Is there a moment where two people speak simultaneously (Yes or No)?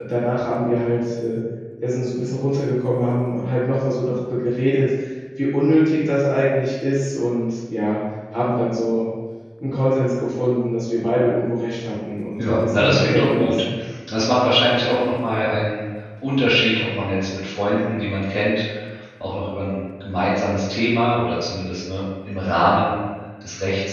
Yes